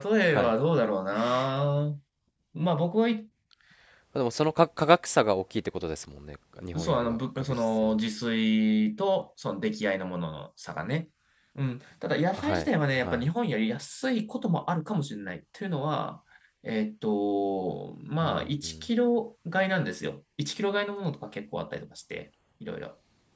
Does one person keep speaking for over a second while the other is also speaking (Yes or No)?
Yes